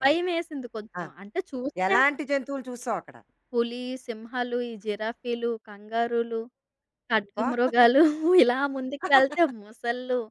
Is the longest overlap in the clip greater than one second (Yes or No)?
No